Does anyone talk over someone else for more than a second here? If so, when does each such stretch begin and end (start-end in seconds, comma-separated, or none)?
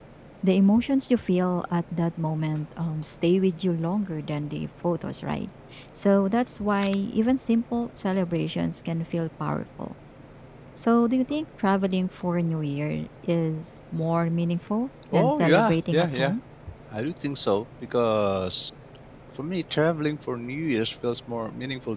15.1-16.3